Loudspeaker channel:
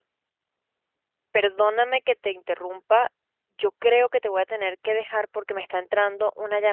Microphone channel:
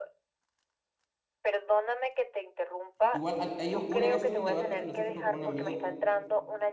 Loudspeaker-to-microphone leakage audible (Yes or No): Yes